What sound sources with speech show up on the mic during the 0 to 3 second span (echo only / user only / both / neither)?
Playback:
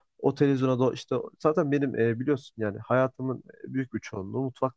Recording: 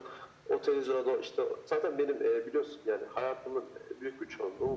echo only